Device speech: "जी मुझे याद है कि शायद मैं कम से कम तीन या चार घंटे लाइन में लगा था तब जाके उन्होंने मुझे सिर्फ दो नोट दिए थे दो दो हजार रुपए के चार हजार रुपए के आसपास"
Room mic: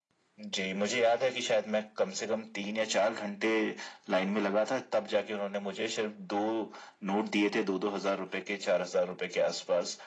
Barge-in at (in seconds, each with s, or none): none